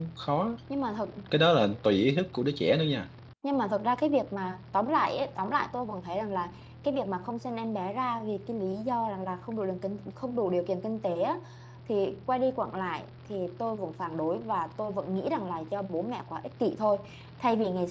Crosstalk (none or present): none